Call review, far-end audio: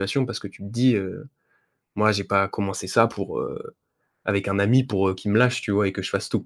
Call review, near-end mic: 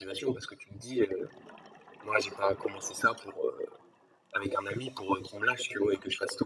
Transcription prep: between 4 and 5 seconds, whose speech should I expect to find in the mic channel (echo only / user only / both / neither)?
echo only